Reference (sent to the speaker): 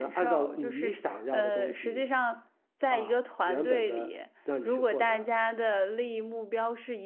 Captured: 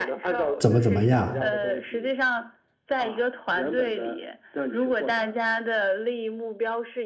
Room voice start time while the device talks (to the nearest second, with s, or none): 1 s